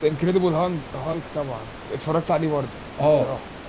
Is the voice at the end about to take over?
Yes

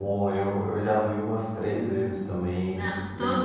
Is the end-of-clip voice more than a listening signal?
Yes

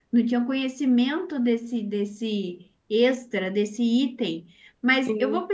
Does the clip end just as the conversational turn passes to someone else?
No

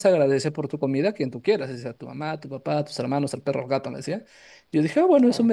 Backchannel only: Yes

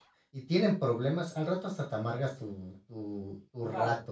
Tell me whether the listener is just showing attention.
No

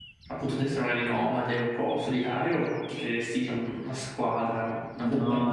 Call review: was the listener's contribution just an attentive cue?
No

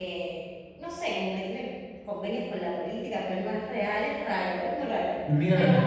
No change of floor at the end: No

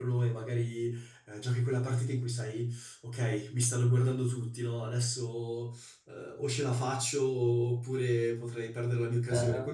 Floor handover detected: No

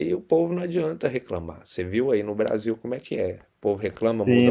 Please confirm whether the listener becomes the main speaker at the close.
Yes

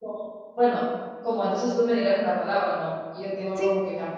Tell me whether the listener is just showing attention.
Yes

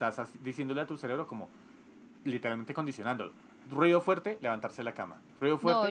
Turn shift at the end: Yes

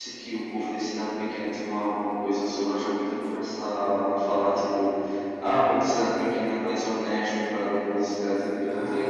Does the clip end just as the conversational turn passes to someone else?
Yes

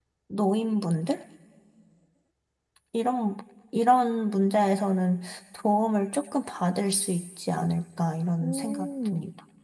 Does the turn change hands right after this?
Yes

